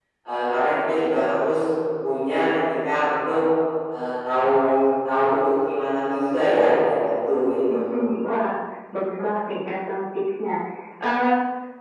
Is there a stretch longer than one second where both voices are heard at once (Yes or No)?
No